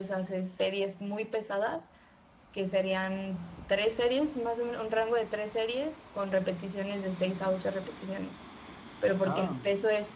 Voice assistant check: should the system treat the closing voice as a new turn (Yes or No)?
No